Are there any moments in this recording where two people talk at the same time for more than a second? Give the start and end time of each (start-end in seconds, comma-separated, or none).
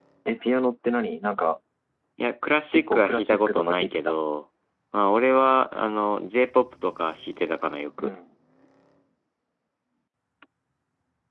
2.7-4.2